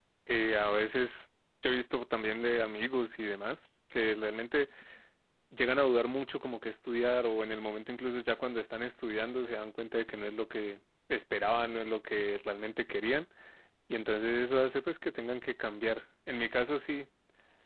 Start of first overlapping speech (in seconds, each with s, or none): none